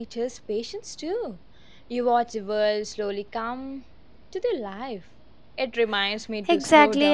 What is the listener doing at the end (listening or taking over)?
taking over